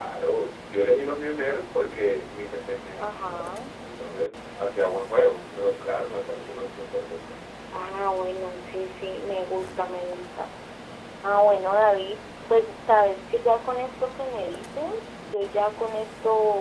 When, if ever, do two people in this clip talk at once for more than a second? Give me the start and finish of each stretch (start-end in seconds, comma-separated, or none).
none